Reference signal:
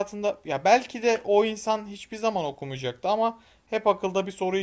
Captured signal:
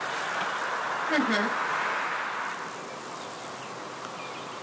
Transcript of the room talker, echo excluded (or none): Hı hı.